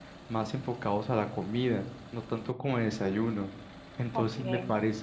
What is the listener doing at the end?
listening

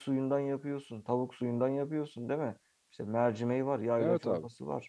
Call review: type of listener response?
listening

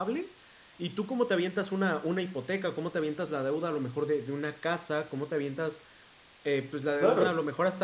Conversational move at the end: listening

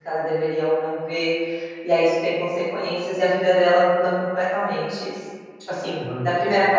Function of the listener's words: listening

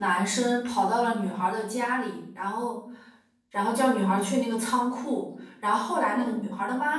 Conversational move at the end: listening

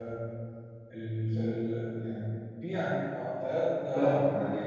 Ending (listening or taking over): taking over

